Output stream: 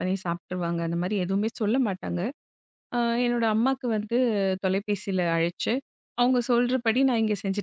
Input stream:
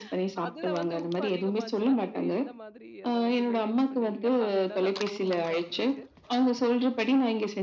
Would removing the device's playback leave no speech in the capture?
No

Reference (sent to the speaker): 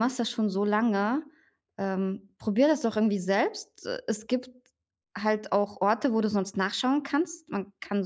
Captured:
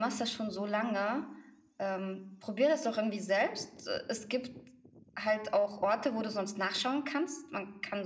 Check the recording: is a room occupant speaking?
No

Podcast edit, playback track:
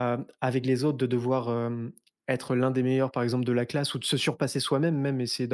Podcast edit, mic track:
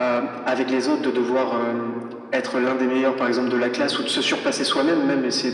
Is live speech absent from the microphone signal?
Yes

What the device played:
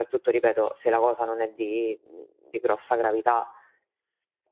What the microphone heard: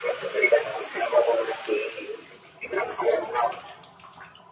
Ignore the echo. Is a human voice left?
No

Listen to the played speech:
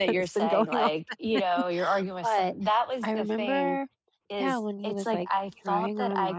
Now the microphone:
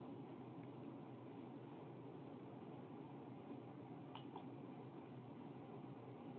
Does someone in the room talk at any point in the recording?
No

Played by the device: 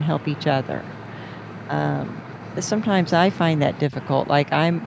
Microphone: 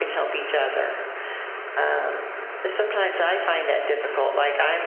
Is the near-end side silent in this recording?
Yes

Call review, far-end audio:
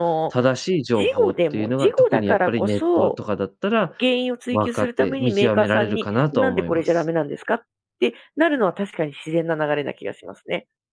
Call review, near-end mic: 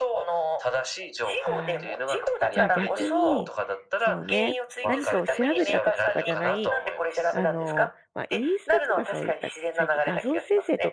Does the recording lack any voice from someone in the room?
No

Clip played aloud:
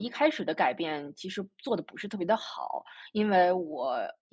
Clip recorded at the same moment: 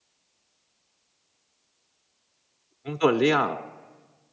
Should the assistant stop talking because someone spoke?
Yes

